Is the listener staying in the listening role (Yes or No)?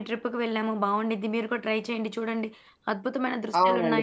No